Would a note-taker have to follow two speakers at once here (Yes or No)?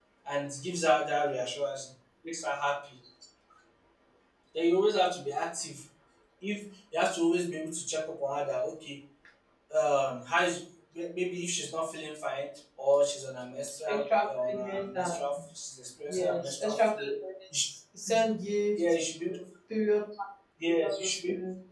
Yes